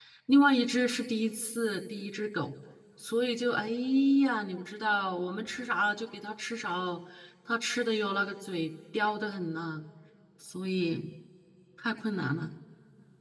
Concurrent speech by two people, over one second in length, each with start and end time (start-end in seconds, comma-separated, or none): none